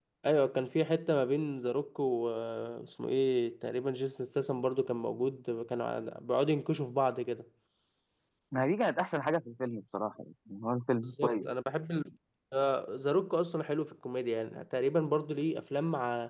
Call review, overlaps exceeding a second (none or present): none